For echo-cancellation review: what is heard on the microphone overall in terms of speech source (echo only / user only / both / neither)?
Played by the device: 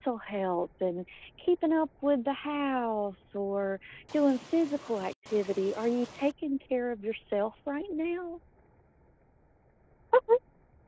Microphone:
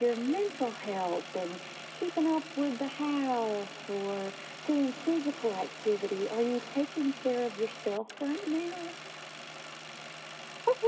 echo only